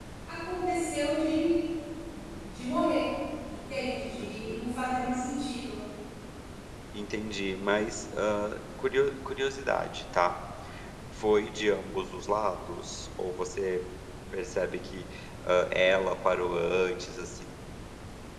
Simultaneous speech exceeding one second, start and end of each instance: none

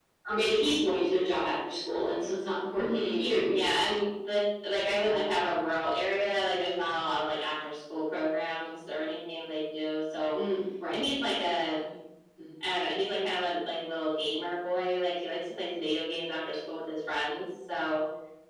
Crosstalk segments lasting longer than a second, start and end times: 2.8-4.0

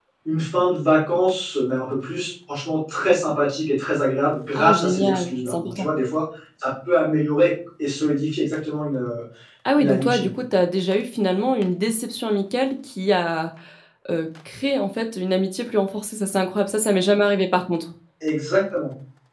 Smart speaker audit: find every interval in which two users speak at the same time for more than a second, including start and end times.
4.5-5.8

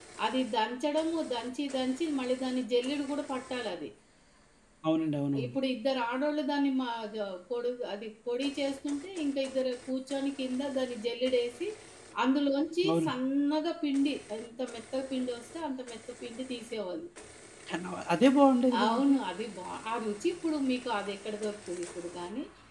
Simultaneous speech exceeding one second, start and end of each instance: none

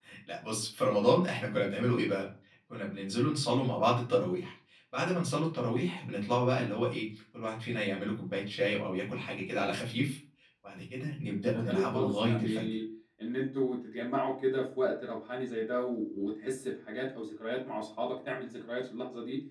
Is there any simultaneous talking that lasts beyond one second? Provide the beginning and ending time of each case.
11.5-12.7

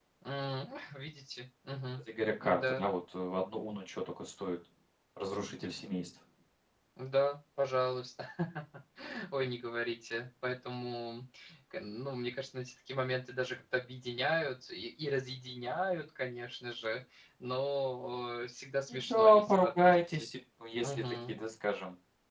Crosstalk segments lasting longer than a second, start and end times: 18.9-20.3

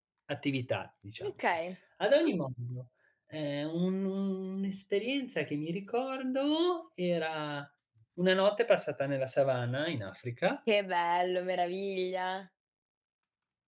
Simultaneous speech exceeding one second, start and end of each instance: none

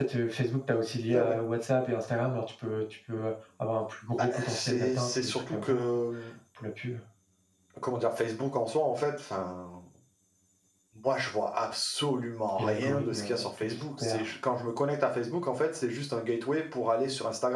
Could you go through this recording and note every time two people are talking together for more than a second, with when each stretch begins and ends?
4.2-5.8, 12.6-14.2

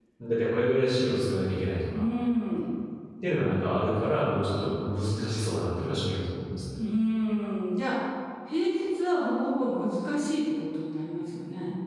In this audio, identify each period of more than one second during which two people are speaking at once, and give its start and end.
none

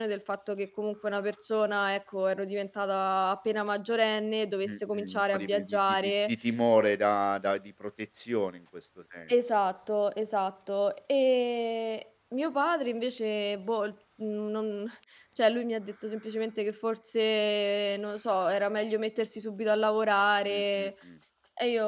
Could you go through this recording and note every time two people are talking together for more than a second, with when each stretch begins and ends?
4.6-6.3

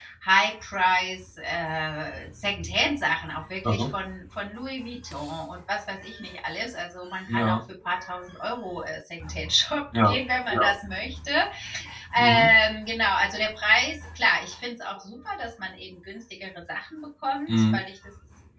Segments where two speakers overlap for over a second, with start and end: none

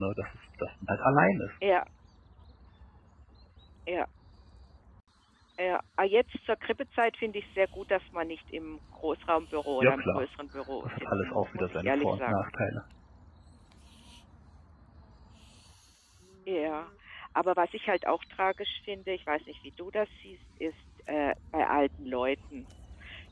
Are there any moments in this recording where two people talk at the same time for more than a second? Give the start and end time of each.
10.8-12.3

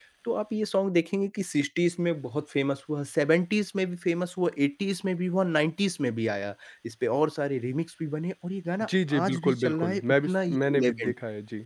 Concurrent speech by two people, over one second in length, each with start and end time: 9.2-11.1

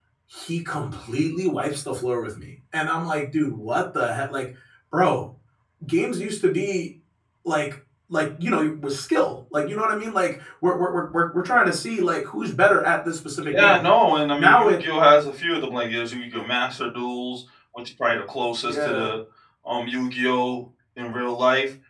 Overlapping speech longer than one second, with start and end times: none

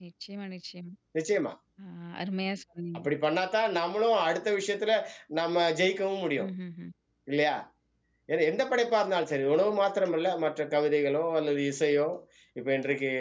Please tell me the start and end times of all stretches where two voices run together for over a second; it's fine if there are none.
none

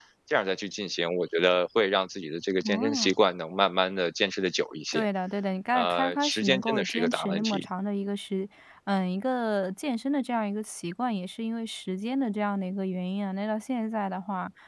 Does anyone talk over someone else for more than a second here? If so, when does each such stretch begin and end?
5.7-7.7

